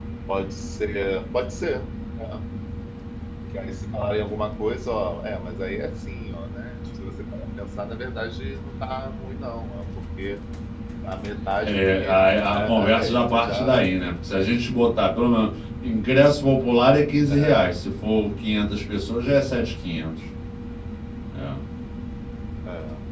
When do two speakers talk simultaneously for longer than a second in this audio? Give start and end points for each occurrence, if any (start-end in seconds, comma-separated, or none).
11.6-13.8